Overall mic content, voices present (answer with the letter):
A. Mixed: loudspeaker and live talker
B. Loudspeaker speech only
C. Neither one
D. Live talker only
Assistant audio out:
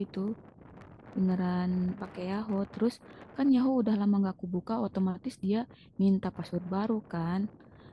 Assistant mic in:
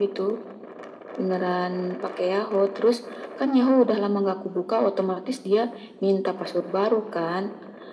B